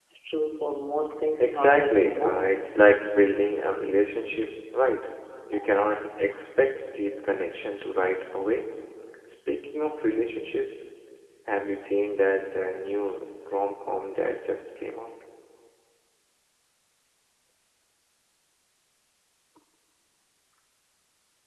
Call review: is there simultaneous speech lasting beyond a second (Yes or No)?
Yes